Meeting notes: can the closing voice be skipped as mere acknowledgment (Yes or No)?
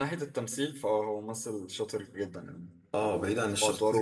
No